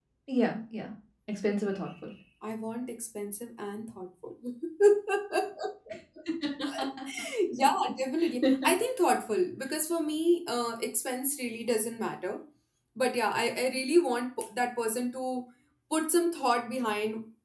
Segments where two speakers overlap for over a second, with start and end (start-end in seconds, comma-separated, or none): none